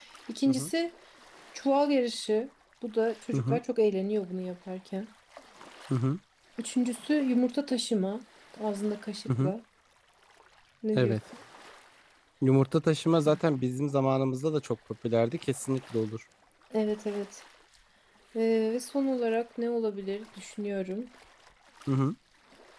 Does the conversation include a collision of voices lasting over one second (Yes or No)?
No